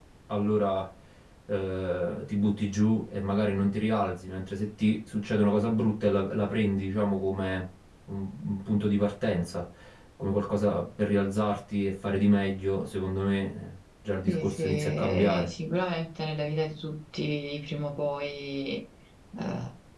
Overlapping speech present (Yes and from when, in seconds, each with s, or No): Yes, from 14.3 s